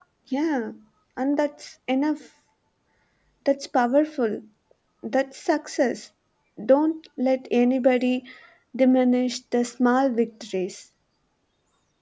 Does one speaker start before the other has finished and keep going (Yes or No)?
No